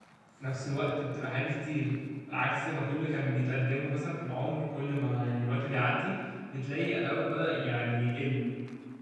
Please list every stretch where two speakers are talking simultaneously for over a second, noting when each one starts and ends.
none

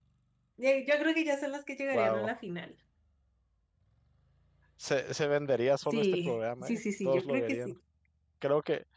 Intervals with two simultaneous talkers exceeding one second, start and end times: 5.9-7.7

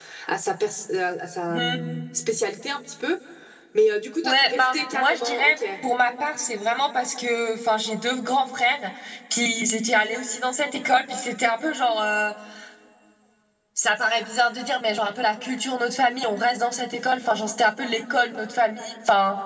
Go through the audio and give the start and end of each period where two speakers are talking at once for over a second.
4.2-5.6

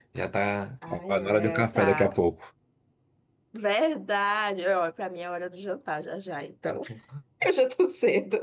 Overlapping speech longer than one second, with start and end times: 0.9-2.1

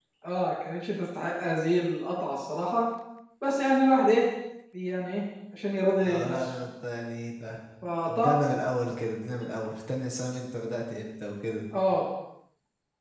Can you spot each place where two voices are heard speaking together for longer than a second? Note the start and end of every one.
none

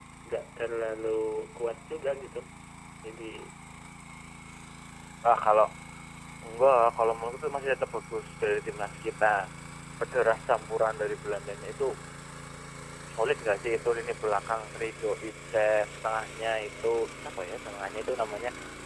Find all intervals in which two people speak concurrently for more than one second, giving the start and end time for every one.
none

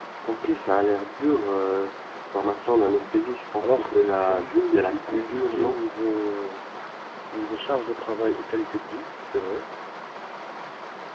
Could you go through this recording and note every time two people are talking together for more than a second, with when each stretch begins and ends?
3.6-5.8

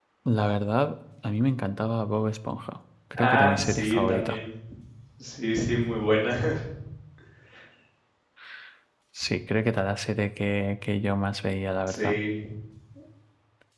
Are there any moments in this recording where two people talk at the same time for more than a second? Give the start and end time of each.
3.2-4.4

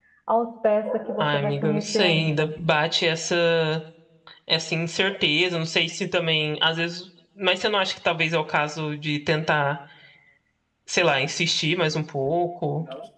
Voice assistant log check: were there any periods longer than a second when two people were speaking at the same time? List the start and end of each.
1.2-2.5

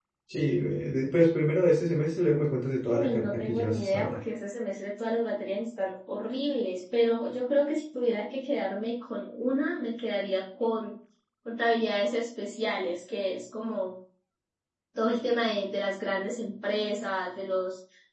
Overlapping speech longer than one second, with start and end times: 2.9-4.2

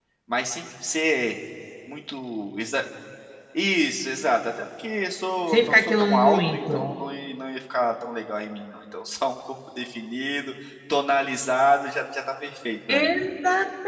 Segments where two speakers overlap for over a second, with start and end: 5.5-6.9

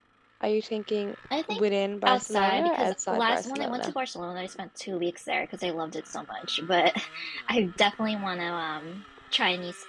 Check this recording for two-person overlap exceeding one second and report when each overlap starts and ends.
2.1-3.9

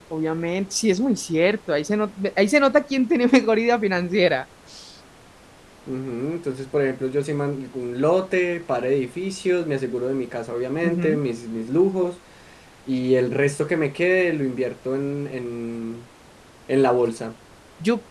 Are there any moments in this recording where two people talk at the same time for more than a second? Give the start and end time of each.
none

